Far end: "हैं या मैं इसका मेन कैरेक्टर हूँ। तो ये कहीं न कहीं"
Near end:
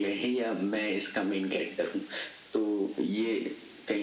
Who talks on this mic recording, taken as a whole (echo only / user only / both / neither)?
echo only